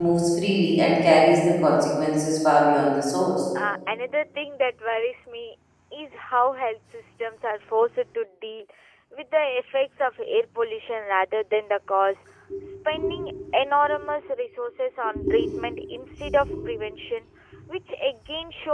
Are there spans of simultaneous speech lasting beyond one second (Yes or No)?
No